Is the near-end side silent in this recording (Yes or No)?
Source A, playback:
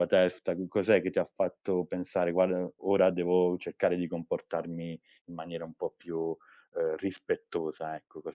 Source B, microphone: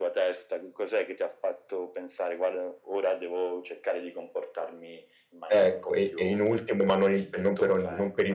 No